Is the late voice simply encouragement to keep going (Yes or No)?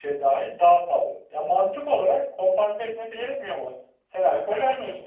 Yes